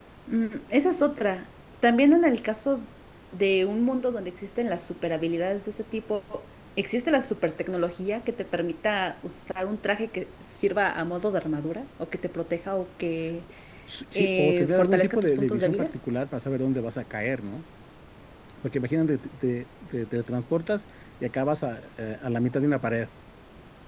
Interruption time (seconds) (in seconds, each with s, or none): 14.2 s